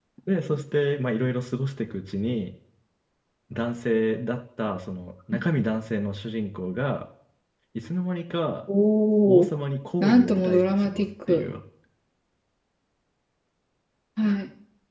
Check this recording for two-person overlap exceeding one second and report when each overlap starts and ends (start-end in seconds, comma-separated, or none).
10.0-11.5